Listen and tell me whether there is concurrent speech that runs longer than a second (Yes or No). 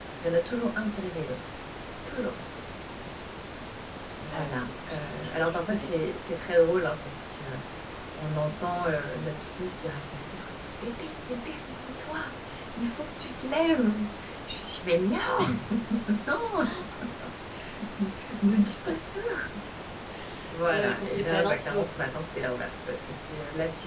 Yes